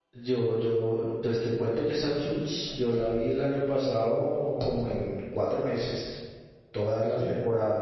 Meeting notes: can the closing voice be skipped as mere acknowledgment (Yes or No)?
Yes